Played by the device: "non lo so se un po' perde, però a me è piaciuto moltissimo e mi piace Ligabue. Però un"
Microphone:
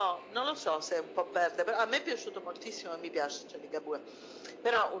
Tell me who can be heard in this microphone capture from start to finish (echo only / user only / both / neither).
echo only